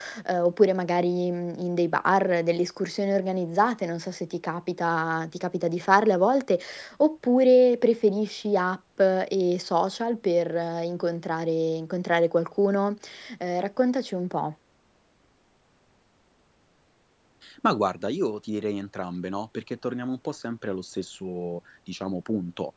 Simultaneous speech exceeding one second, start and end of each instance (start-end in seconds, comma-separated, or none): none